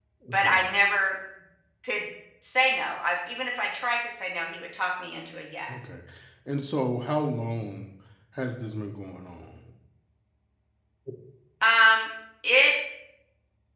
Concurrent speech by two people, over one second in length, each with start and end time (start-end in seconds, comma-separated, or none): none